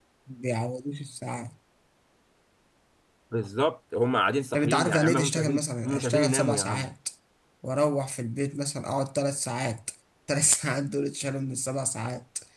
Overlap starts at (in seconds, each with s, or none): 4.5 s